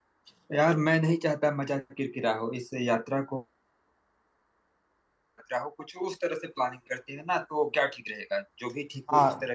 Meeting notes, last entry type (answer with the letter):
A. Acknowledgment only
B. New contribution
B